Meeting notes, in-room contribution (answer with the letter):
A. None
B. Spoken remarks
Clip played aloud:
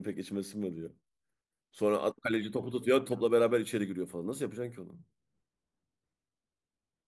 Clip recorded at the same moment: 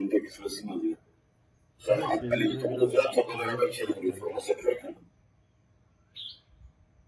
B